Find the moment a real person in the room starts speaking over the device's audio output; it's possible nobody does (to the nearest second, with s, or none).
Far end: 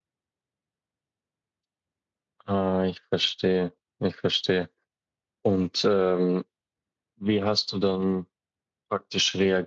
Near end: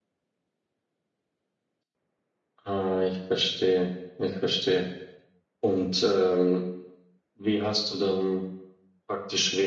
none